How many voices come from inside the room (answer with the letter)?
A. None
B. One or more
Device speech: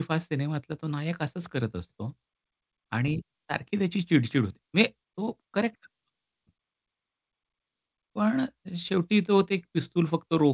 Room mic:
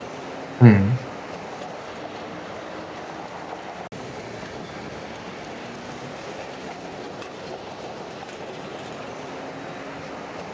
B